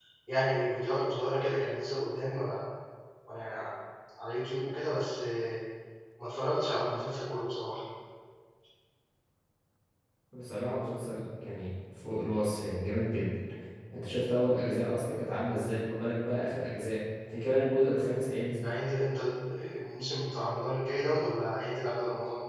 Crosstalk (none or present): none